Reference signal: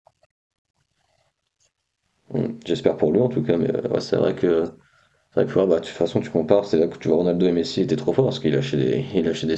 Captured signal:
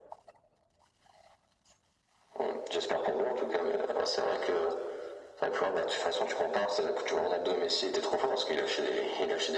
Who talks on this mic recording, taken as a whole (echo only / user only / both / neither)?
echo only